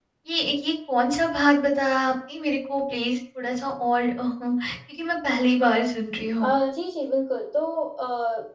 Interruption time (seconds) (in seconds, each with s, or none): none